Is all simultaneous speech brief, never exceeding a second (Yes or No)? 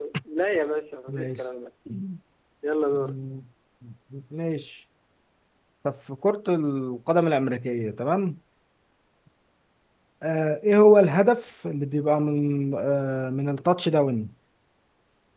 Yes